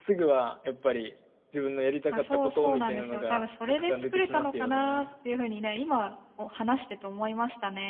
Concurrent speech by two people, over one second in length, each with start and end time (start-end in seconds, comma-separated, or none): 2.1-5.0